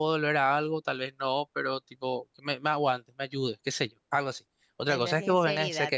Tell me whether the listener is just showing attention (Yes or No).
Yes